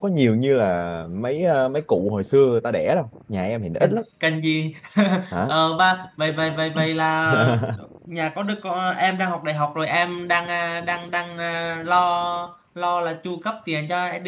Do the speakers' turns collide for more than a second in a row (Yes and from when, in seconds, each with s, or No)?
No